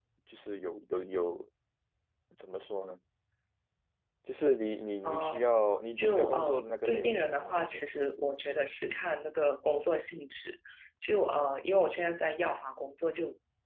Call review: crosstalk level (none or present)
present